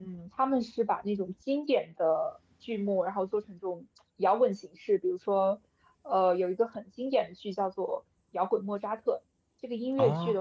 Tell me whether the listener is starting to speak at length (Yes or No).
No